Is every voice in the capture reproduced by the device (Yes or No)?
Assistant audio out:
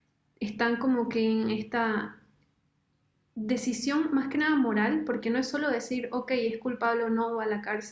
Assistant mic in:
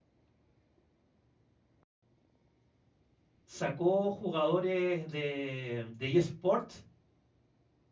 No